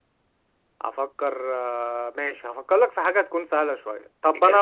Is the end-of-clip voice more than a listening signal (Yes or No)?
No